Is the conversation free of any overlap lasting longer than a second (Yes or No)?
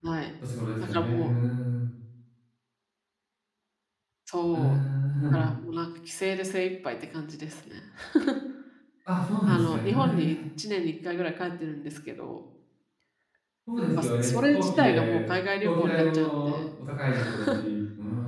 No